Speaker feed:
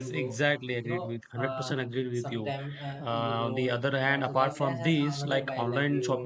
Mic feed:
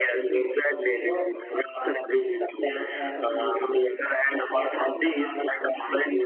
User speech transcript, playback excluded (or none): none